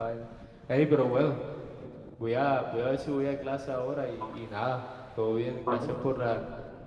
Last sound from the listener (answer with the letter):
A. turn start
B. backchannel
B